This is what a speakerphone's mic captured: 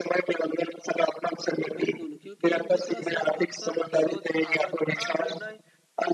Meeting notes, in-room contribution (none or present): present